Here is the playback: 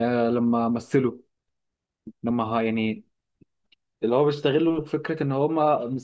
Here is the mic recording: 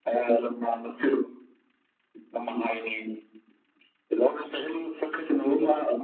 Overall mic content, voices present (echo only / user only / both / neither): echo only